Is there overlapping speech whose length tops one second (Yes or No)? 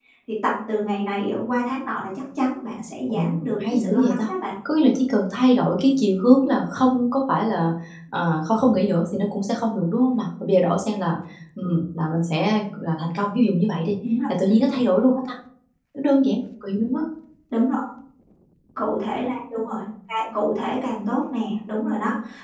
Yes